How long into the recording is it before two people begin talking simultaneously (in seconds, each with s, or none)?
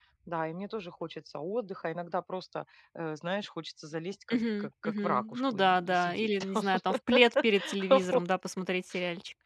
4.3 s